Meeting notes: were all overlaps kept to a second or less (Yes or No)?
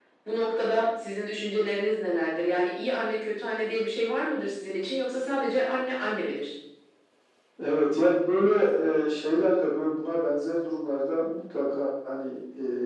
Yes